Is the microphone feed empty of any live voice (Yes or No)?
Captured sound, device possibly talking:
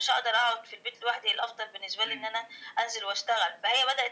No